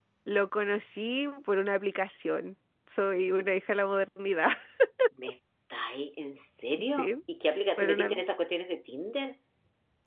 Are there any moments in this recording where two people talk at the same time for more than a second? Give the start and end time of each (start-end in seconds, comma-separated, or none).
none